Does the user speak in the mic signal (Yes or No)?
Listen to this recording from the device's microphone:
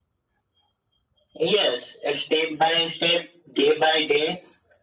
No